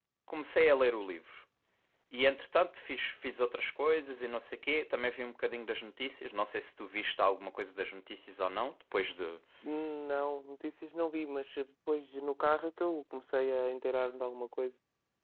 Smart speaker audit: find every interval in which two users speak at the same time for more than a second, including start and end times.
none

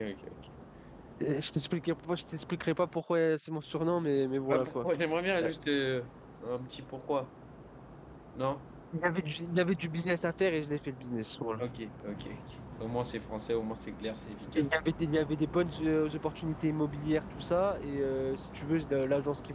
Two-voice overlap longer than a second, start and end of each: none

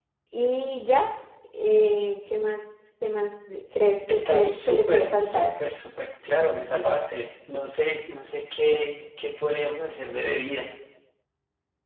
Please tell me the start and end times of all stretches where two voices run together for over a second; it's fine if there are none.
4.1-5.5

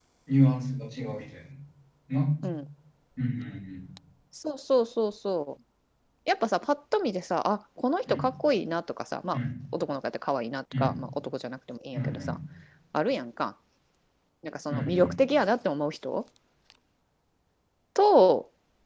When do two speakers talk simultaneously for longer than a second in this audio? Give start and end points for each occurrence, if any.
none

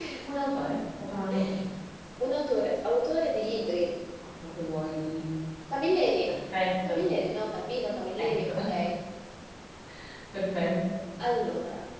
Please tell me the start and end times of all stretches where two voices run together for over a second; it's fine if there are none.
none

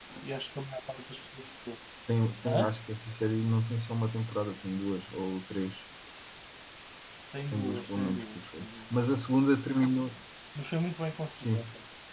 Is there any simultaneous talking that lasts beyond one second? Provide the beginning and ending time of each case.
7.5-8.9

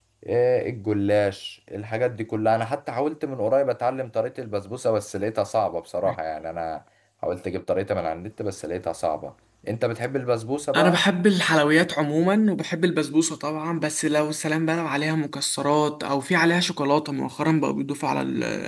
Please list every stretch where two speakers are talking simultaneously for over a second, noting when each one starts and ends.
none

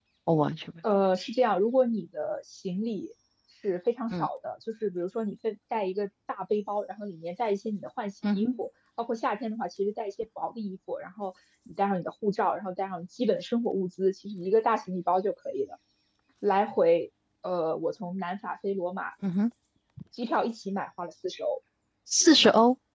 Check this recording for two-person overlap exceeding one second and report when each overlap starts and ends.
none

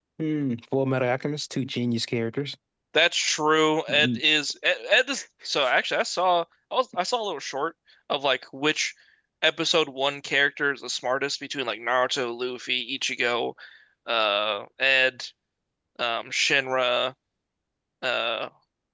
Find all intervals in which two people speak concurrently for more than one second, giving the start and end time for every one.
none

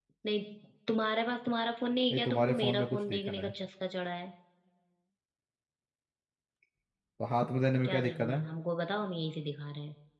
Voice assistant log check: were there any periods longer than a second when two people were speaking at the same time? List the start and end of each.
2.1-3.5

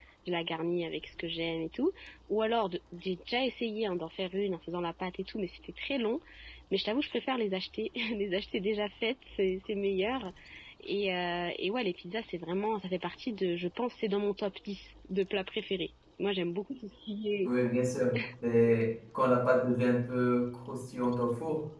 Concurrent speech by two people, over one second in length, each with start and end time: none

